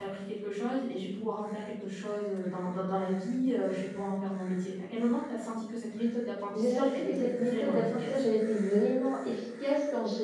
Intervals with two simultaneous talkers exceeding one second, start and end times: 6.6-8.1

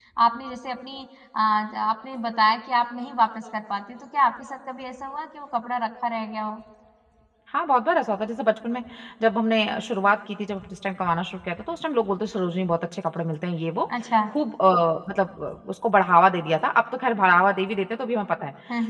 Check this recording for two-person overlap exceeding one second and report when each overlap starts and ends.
none

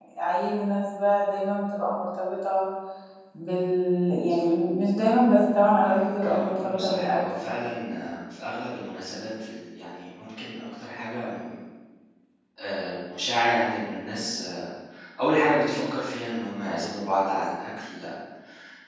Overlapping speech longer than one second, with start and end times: 5.8-7.2

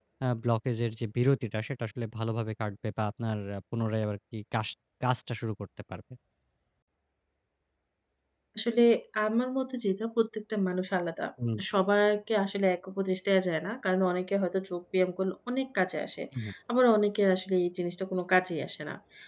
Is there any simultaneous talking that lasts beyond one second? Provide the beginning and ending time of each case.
none

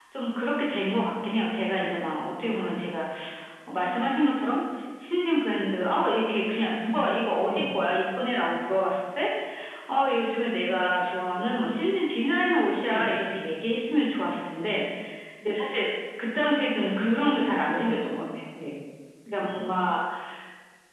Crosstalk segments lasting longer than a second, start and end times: 16.8-18.2

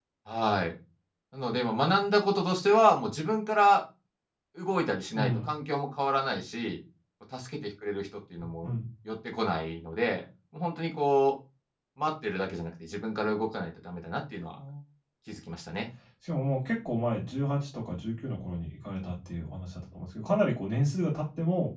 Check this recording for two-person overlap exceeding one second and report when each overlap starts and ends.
none

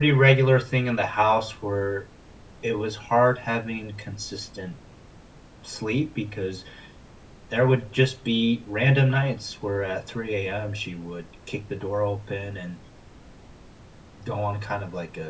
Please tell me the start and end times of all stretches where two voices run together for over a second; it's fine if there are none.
none

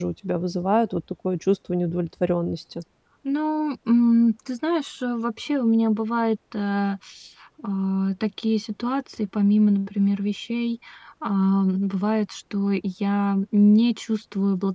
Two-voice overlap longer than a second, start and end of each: none

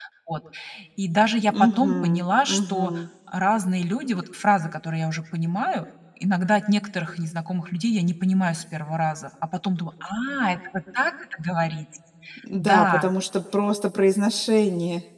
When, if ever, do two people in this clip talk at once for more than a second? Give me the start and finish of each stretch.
1.5-3.0

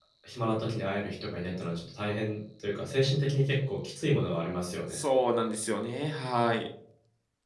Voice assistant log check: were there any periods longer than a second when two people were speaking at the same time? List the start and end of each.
none

